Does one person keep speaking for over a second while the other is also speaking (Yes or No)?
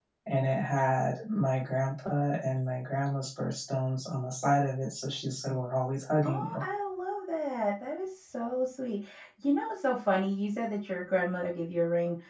No